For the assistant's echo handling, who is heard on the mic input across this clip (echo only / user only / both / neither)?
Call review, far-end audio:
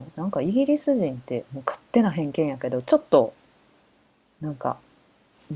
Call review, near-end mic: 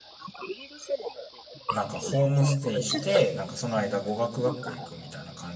both